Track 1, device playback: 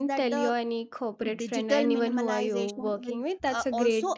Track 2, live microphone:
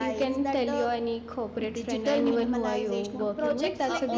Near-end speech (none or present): present